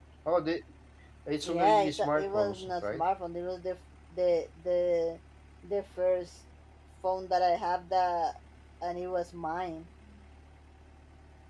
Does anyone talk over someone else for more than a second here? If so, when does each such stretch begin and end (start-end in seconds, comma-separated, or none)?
1.4-3.0